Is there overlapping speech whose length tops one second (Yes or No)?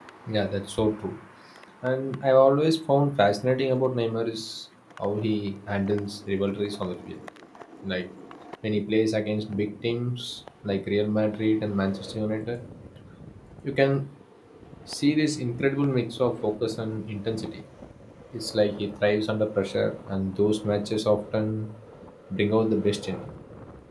No